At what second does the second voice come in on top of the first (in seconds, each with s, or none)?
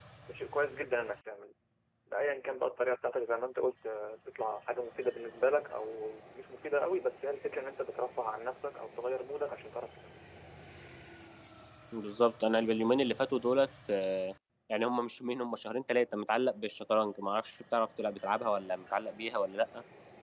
none